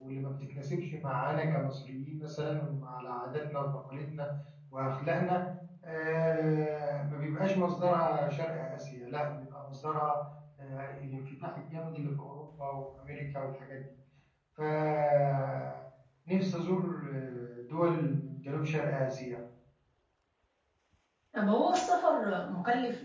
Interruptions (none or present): none